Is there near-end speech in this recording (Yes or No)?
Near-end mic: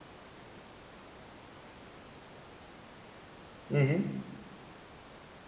Yes